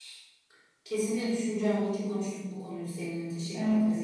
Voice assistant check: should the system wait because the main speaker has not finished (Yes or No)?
No